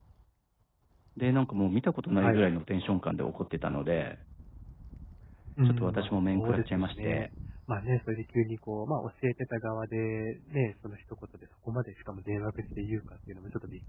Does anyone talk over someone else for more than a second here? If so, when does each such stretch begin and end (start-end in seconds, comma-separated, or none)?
5.7-7.3